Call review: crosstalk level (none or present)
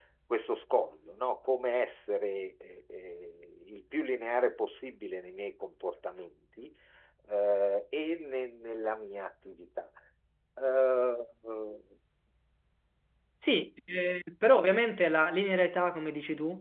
none